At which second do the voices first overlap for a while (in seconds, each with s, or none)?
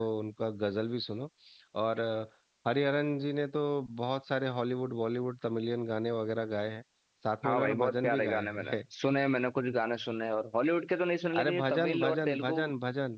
7.5 s